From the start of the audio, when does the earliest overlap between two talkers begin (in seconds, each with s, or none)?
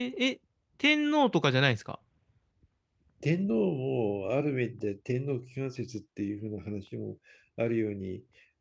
none